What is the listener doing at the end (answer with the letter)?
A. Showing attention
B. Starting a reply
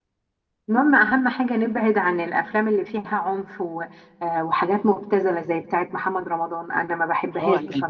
B